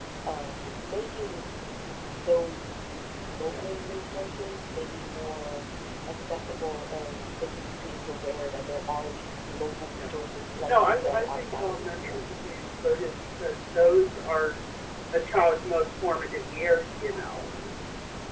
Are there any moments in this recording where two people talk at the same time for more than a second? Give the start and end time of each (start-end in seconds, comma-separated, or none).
10.7-12.2